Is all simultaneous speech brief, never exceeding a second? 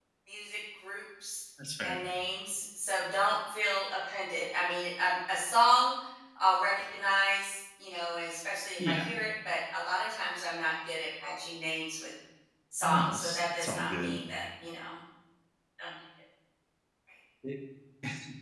No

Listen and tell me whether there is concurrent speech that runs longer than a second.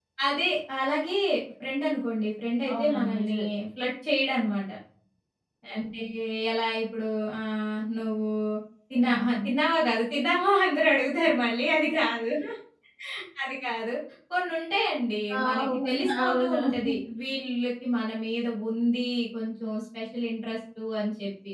Yes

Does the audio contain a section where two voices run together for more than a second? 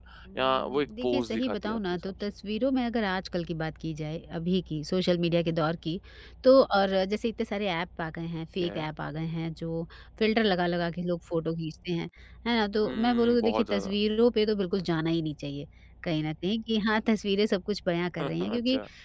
Yes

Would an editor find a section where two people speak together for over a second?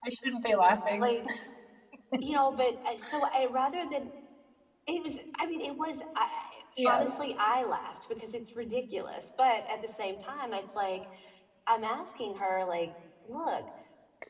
No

